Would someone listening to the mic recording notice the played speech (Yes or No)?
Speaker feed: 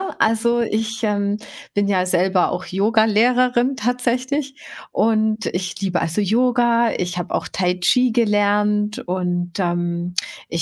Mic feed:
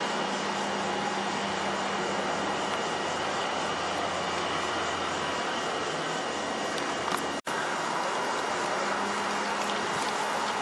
No